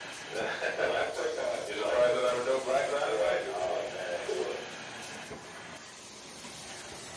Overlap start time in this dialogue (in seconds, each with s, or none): 0.7 s